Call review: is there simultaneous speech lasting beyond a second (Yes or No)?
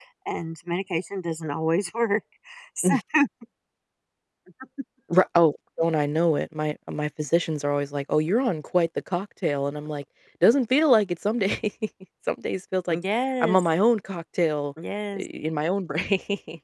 No